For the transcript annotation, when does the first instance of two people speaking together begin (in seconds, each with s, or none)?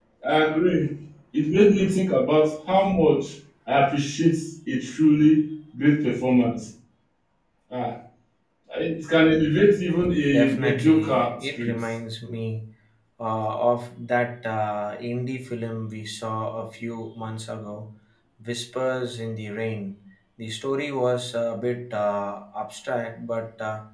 10.3 s